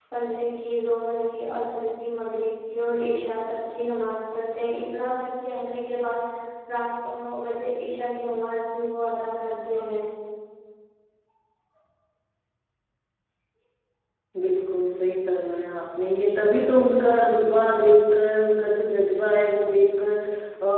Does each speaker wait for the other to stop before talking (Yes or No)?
Yes